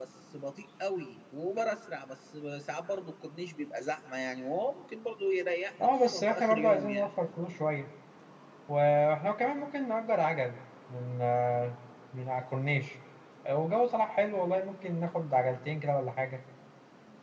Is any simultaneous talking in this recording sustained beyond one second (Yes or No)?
Yes